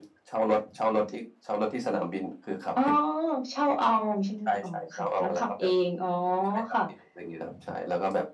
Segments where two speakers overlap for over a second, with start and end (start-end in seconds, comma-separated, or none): 4.5-5.7